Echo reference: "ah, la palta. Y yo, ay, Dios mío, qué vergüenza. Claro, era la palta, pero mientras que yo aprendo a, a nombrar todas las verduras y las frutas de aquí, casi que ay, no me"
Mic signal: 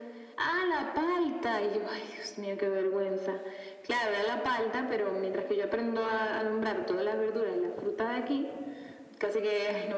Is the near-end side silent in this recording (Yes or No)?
Yes